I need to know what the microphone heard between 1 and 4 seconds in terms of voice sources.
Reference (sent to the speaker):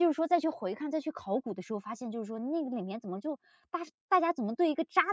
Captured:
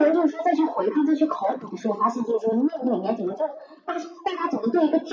echo only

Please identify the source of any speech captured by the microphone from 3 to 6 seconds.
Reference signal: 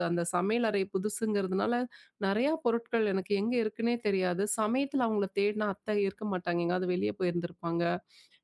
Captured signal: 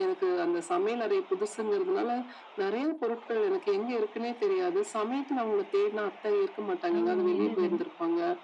echo only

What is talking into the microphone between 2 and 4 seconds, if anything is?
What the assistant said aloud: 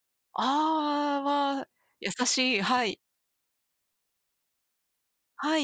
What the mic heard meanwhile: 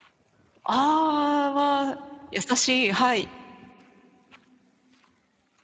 echo only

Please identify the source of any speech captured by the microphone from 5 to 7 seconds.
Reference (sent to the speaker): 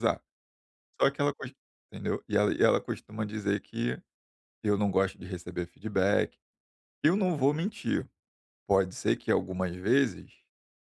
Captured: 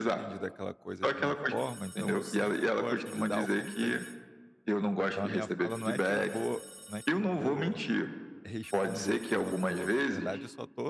both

